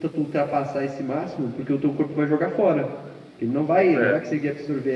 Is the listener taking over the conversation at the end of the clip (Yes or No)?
No